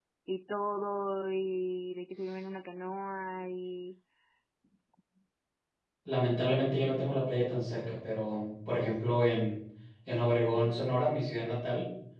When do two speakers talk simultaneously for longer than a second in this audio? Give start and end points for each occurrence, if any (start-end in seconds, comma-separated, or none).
none